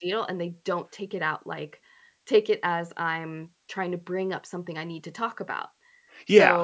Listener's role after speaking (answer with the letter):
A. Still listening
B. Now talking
B